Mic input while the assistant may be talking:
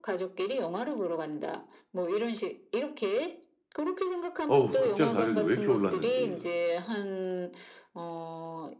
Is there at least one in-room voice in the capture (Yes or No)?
Yes